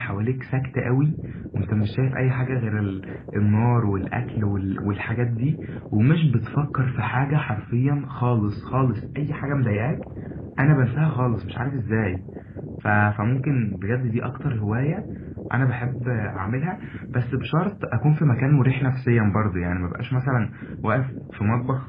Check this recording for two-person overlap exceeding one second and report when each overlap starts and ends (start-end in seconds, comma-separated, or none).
none